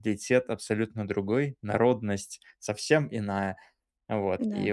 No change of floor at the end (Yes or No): Yes